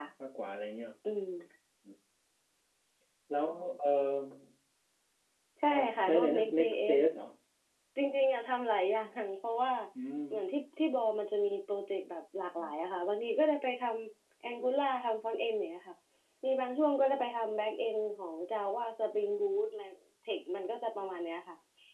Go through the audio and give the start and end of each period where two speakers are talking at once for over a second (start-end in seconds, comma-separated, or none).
5.7-7.0